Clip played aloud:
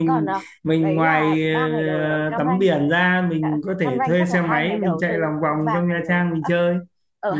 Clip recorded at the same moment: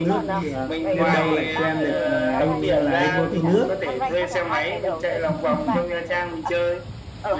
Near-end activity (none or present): present